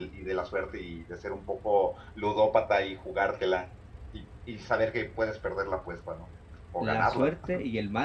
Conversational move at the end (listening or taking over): taking over